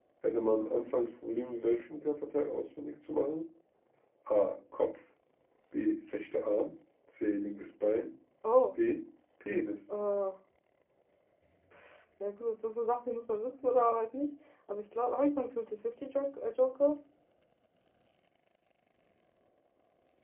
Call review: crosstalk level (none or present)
none